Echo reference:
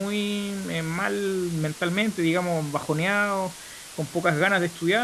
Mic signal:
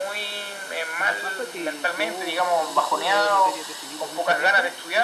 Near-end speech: present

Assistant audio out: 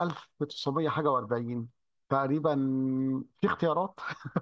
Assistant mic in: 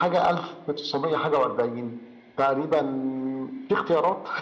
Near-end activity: none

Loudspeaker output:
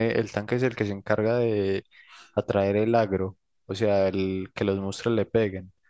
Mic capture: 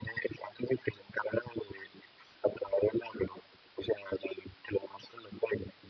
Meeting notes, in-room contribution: none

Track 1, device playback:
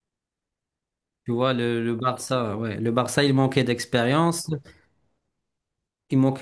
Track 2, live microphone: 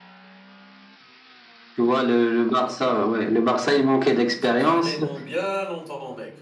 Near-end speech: present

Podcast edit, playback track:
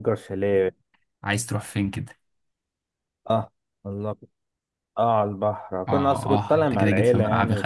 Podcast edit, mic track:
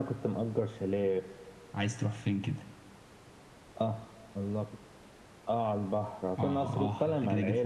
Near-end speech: none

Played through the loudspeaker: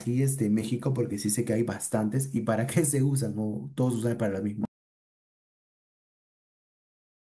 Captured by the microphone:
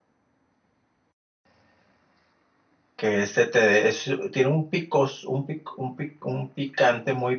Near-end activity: present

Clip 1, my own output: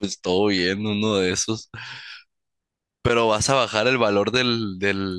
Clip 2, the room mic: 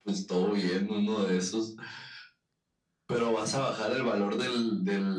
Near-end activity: none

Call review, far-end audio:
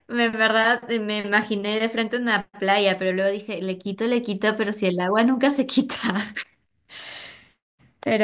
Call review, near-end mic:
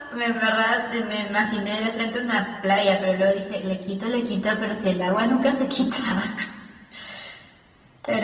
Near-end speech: none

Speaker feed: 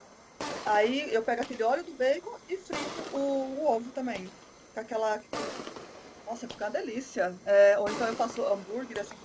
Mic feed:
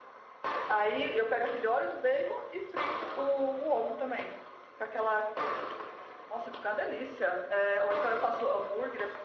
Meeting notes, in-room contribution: none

